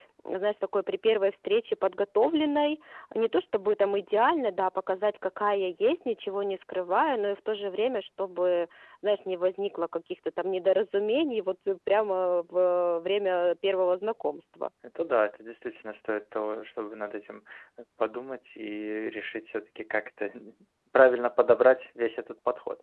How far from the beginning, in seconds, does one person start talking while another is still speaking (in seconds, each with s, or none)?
none